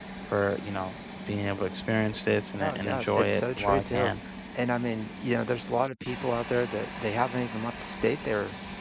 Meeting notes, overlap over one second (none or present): present